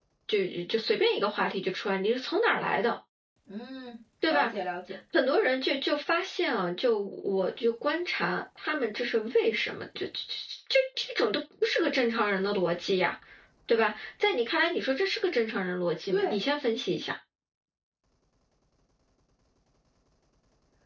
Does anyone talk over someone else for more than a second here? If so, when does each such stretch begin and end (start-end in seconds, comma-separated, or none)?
none